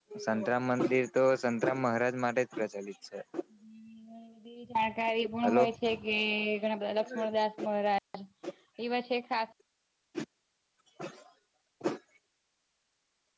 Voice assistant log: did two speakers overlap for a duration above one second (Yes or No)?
No